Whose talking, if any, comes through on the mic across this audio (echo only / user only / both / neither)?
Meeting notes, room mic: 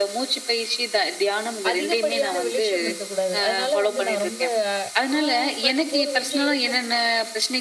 both